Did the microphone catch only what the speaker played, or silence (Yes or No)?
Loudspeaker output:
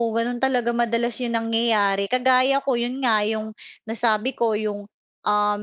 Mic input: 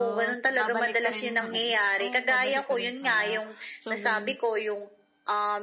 No